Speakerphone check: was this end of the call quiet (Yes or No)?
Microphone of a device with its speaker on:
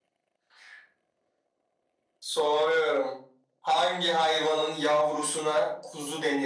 Yes